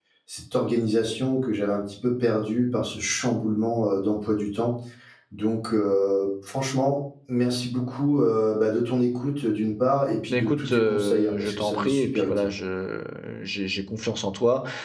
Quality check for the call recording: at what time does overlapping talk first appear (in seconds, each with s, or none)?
10.3 s